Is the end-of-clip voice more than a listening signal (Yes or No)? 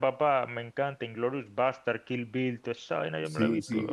Yes